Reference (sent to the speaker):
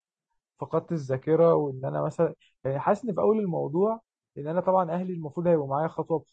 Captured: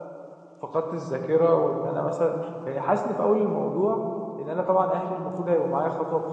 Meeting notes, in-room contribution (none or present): none